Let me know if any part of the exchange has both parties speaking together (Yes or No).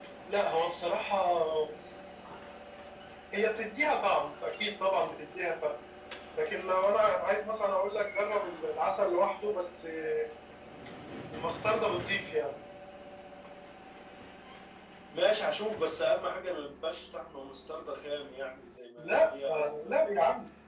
Yes